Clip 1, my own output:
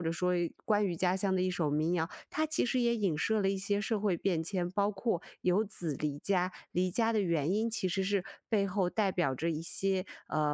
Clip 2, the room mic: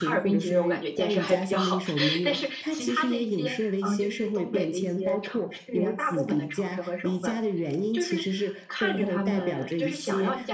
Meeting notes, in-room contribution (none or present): present